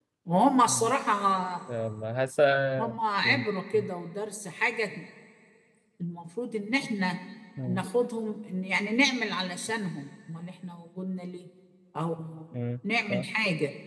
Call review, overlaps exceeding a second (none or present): none